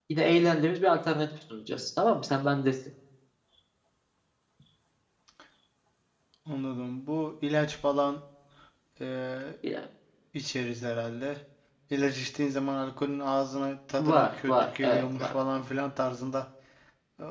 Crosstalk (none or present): present